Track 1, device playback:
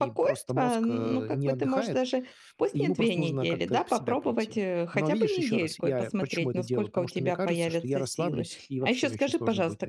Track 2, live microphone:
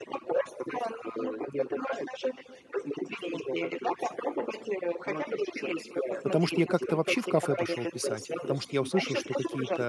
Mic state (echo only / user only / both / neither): both